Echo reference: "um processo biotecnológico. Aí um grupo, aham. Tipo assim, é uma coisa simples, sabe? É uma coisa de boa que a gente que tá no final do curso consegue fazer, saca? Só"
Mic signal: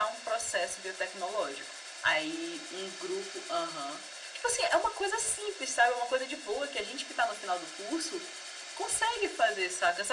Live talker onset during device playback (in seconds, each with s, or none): none